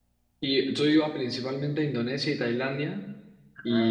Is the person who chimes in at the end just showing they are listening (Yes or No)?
Yes